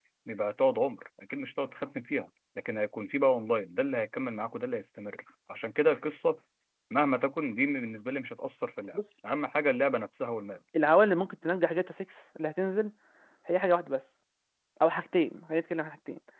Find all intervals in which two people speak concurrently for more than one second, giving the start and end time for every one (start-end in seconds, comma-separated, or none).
none